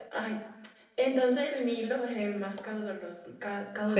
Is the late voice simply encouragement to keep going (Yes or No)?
No